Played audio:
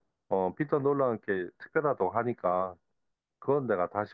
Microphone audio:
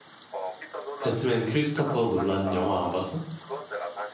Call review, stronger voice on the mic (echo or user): user